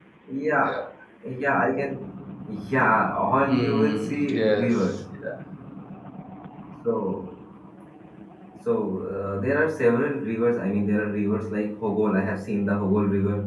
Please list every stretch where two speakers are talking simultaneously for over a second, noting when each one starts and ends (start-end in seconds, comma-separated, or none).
3.5-4.8